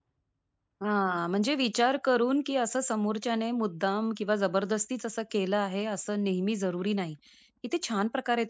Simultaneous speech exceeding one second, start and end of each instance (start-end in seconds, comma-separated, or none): none